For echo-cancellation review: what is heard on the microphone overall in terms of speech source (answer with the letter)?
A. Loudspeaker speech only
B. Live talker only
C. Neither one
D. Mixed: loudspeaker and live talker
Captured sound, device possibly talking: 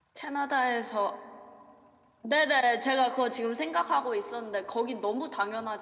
A